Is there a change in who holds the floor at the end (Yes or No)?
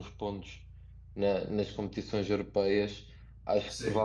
No